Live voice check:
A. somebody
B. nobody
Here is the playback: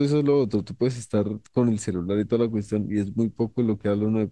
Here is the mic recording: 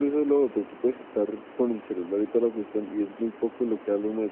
B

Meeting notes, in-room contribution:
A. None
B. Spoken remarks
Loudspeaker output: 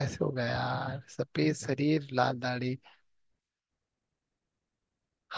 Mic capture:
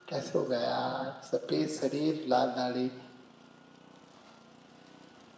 A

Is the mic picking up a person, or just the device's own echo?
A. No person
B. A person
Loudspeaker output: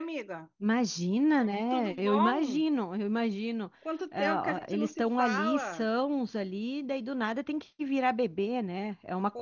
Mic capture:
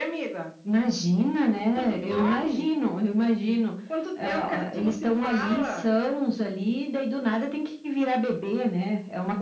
A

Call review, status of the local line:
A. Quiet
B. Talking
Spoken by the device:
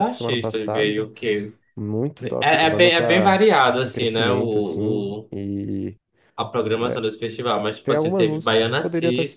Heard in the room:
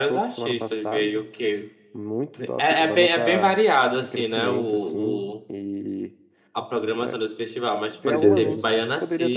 B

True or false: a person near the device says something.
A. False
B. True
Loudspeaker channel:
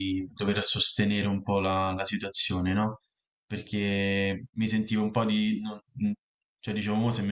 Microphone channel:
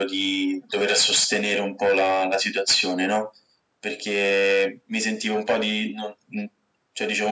A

